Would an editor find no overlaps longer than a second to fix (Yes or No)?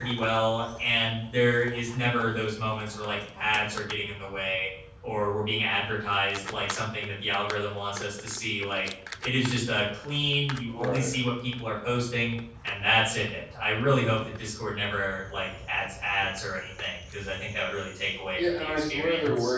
No